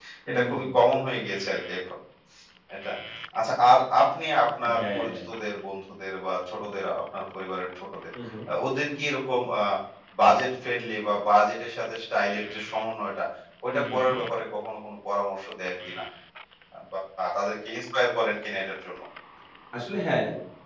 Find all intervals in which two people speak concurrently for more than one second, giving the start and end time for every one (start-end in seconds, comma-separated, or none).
none